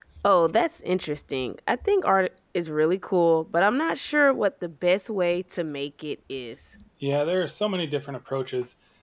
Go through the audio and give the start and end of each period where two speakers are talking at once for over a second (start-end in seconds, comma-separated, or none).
none